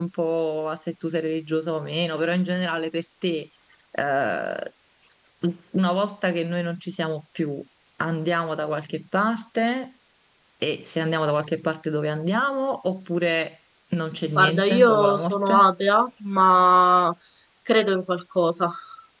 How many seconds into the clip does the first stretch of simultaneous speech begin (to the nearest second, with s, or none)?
14 s